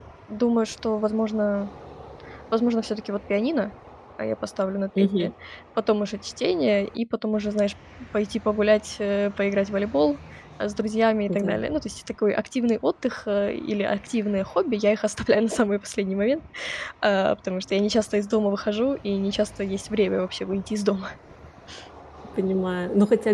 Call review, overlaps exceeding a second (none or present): none